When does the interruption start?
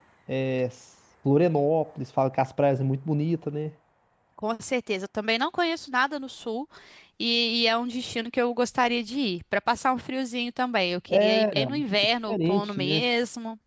11.1 s

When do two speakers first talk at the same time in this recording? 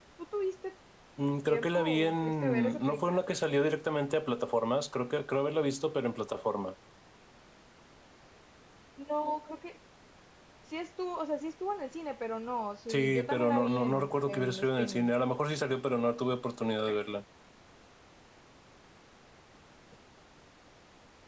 1.5 s

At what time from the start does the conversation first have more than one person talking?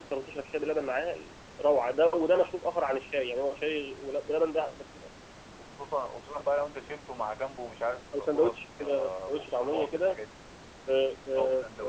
8.2 s

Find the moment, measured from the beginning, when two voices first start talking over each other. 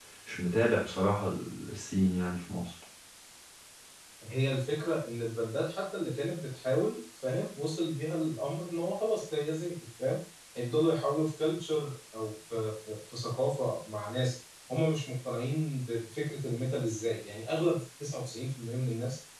none

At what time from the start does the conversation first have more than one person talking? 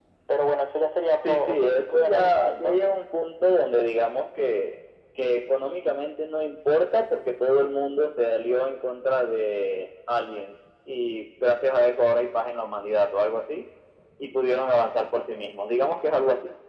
1.2 s

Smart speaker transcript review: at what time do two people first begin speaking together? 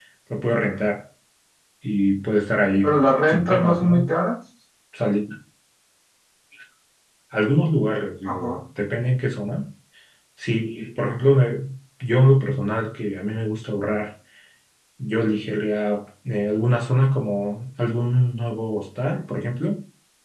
2.8 s

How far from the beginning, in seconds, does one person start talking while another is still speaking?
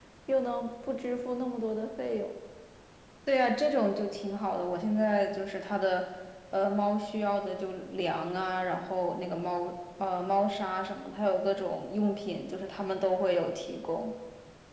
none

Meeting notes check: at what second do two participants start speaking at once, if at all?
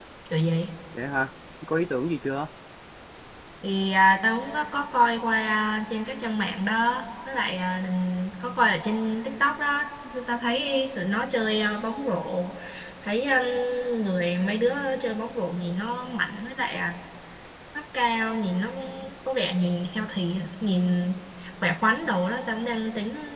none

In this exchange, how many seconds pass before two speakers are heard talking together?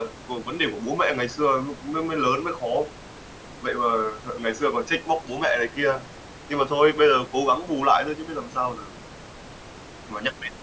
none

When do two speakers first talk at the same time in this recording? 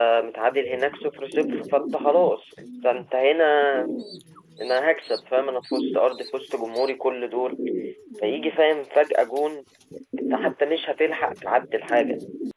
none

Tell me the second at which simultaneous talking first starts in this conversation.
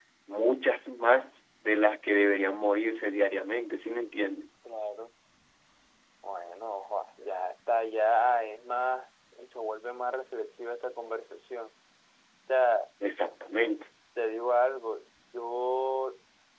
none

